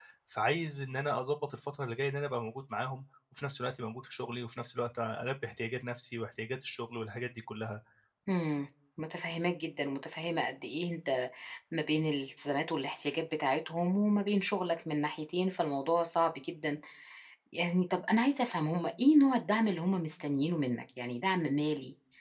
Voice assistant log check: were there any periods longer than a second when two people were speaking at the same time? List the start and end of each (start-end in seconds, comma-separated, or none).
none